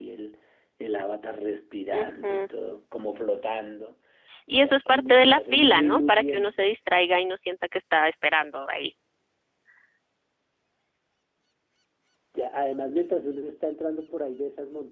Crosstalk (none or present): present